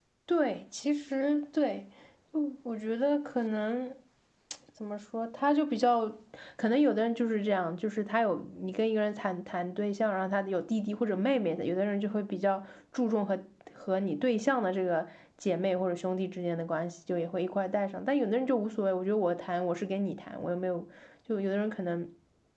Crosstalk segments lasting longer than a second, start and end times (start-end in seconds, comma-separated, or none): none